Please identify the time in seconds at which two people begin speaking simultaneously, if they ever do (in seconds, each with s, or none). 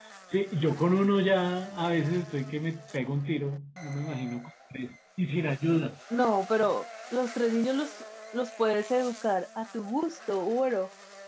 none